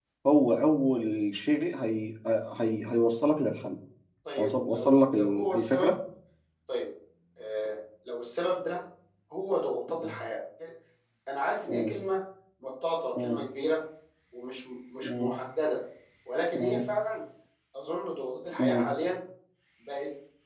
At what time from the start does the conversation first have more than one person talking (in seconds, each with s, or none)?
4.4 s